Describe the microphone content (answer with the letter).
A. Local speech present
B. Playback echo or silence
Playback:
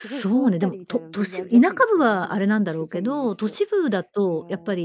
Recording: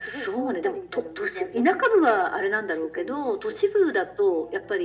B